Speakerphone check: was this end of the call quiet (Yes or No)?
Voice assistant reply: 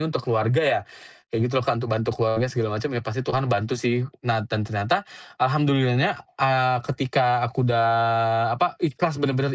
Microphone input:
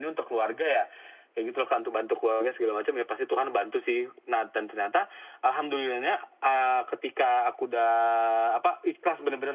Yes